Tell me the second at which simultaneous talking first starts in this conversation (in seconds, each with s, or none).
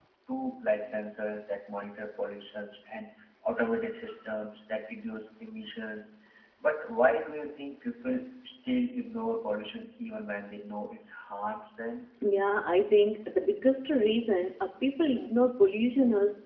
none